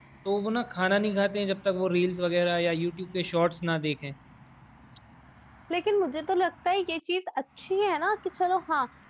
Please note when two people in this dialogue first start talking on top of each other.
none

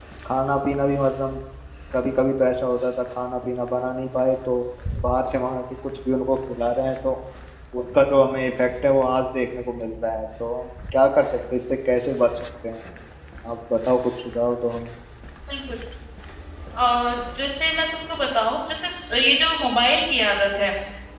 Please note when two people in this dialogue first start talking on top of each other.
none

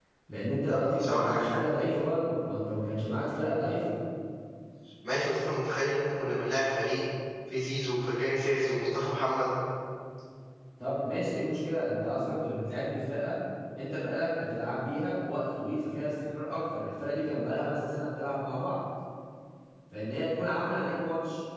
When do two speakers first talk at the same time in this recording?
0.7 s

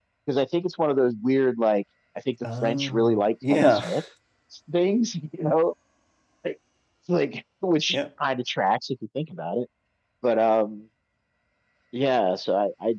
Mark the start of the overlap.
2.4 s

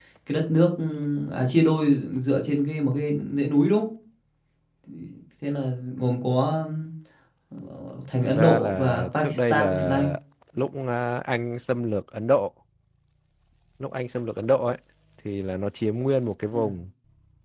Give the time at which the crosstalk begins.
8.2 s

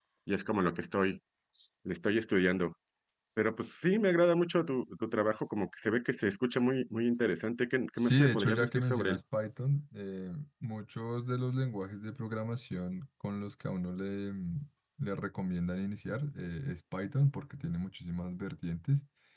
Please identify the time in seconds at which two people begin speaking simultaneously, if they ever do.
8.0 s

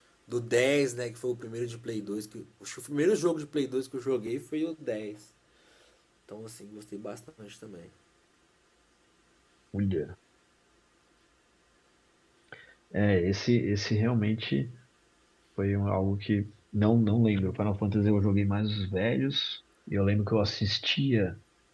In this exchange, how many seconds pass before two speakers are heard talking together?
none

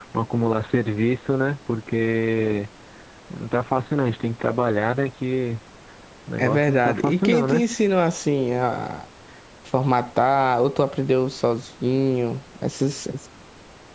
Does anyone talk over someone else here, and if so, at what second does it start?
6.4 s

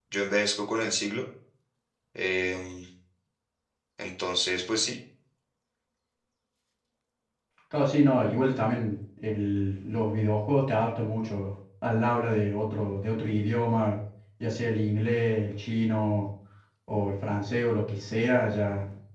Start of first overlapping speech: none

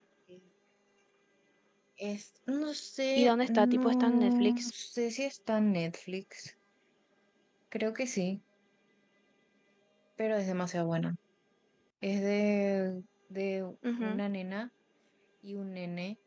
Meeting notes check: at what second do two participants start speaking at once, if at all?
3.2 s

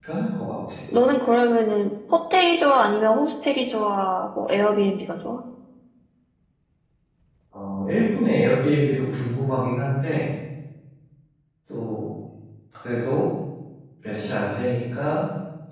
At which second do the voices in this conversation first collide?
none

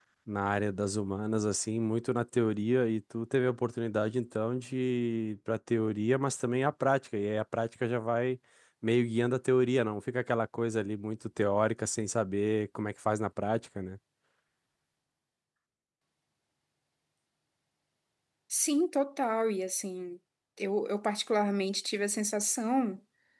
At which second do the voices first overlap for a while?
none

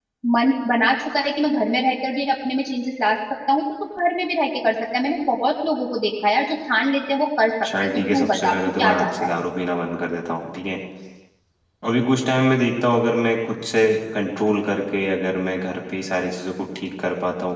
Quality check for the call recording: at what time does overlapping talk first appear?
7.6 s

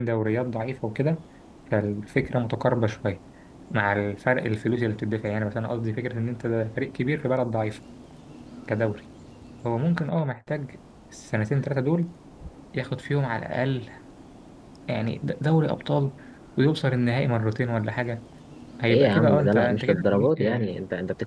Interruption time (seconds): 18.9 s

